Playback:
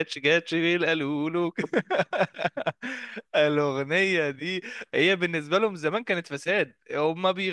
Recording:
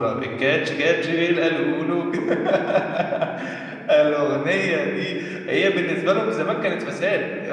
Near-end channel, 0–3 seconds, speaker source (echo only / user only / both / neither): echo only